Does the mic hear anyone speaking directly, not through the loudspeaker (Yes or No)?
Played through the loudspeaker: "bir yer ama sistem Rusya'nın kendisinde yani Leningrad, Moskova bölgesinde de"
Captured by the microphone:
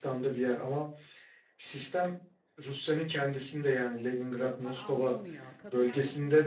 Yes